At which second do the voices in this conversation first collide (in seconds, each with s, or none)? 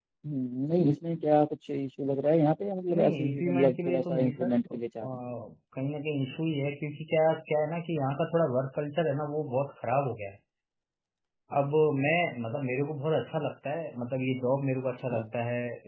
3.0 s